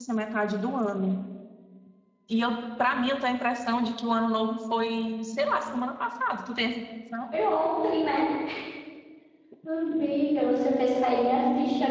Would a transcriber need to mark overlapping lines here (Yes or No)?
No